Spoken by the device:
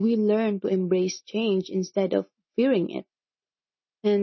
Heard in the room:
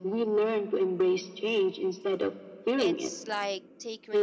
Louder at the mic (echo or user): echo